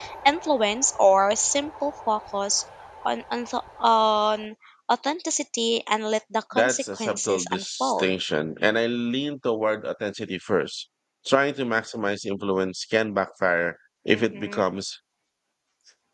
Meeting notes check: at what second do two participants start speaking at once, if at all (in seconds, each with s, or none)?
6.5 s